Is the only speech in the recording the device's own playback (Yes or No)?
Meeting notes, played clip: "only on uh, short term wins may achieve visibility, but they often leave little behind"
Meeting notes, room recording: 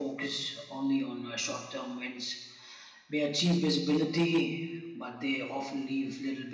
Yes